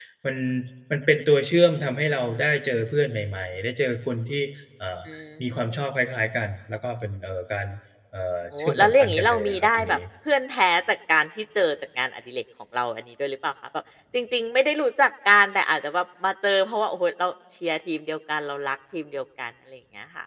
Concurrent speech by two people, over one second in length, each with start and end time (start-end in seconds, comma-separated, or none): 8.5-10.0